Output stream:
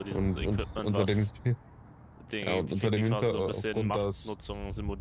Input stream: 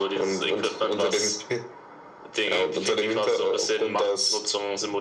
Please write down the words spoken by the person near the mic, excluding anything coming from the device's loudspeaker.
none

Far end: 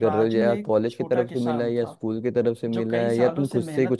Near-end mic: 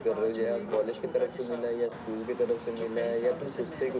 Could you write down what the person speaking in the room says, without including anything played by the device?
none

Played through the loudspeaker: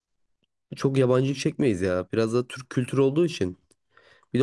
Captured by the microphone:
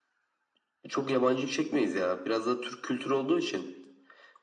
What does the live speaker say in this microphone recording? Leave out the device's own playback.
none

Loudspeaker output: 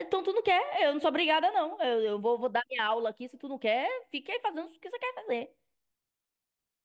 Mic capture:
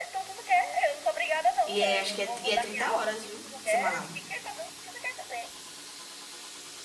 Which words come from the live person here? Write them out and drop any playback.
E é, acho que é, e é 30 horas, viu? Semanal.

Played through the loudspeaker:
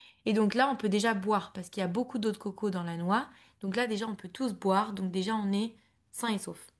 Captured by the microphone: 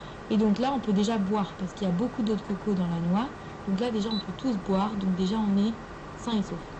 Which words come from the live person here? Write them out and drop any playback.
none

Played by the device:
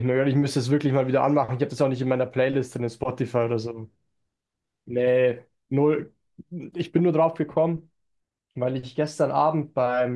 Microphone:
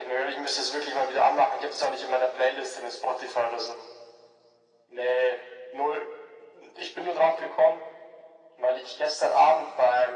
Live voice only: none

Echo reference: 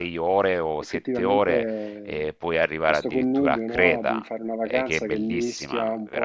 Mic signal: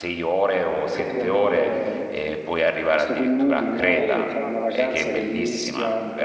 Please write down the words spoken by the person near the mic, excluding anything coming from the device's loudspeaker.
sì, no, no, assolutamente.

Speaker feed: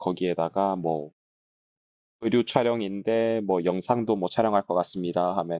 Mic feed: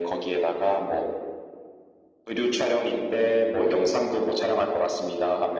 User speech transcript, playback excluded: none

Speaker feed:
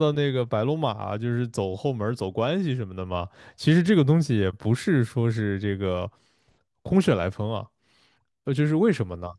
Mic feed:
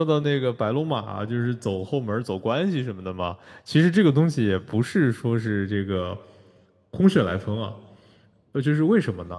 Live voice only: none

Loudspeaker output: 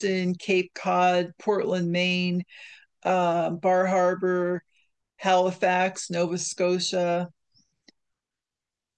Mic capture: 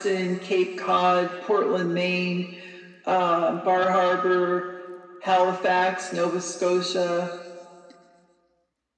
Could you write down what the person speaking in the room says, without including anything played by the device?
none

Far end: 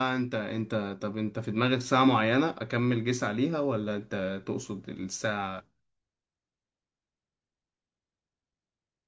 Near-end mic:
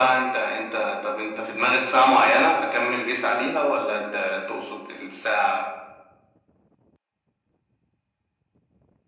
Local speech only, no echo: none

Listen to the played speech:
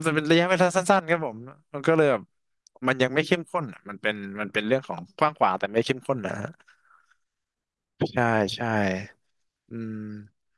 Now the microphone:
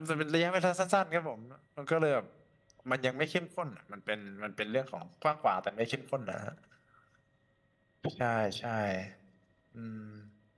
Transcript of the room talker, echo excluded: none

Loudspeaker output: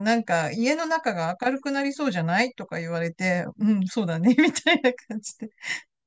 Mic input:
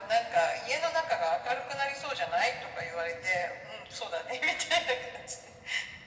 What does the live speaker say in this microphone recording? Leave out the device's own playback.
none

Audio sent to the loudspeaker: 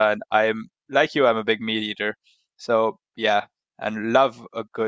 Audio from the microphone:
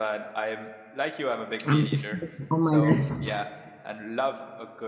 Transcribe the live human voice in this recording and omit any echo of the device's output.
Um, it's still on my list.

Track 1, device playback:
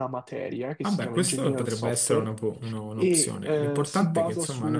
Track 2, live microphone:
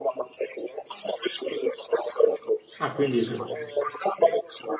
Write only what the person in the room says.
Ah, quindi c'è.

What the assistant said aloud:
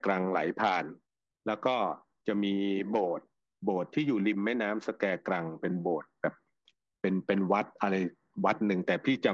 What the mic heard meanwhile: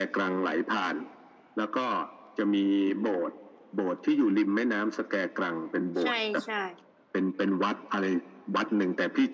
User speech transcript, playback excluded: ใช่ใช่

